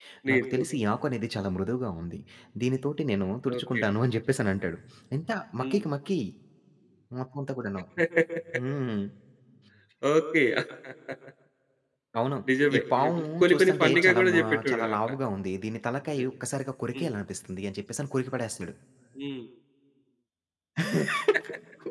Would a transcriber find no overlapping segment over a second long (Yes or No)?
No